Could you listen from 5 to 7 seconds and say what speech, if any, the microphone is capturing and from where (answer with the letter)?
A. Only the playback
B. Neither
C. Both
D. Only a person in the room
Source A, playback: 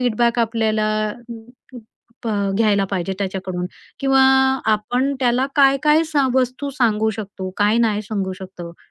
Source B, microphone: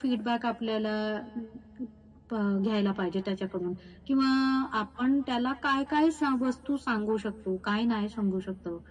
A